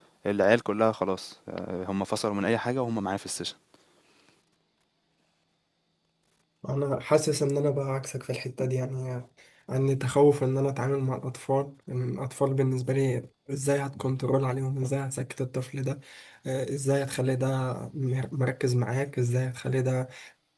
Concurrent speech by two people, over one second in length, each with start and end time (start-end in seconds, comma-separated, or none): none